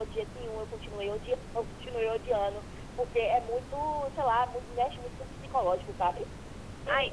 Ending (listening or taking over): taking over